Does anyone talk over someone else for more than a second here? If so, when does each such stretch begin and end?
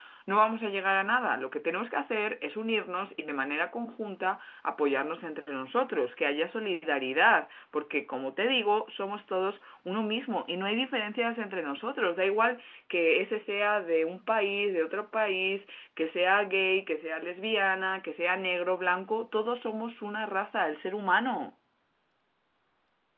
none

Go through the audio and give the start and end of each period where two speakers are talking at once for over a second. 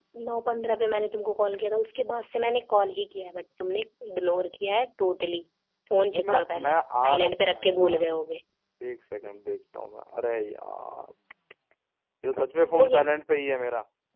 6.1-8.1

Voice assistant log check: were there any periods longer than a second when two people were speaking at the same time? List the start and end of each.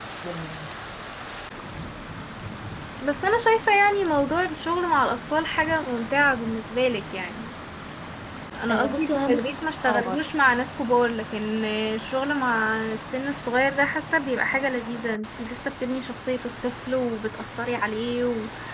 8.7-10.2

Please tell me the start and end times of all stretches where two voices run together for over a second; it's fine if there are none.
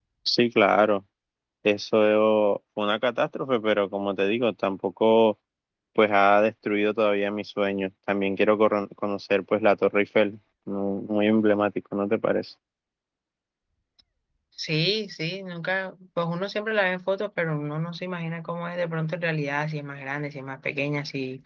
none

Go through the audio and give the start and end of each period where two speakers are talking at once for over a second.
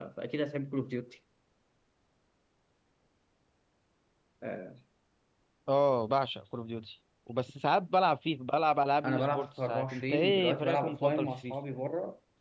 9.1-11.6

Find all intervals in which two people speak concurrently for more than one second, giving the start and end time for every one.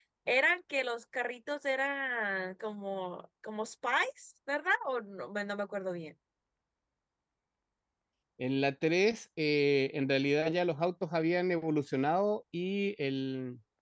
none

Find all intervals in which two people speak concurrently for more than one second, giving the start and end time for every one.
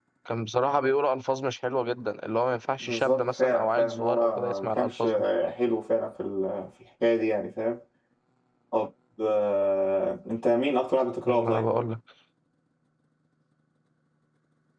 2.8-5.1

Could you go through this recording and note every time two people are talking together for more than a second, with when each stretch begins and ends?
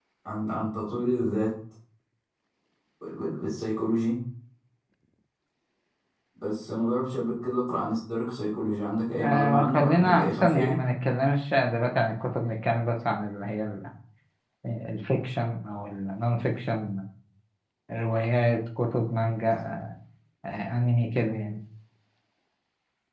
9.2-10.8

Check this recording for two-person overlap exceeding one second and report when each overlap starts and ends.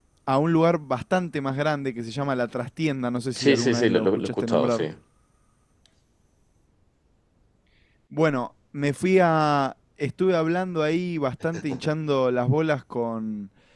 3.4-4.8

